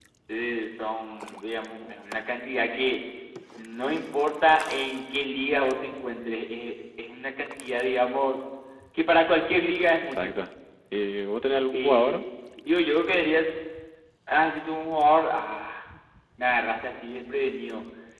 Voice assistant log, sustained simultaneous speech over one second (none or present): none